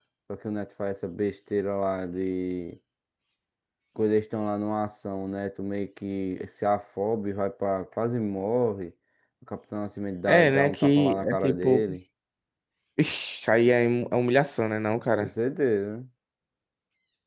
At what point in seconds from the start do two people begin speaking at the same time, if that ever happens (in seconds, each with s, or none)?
10.3 s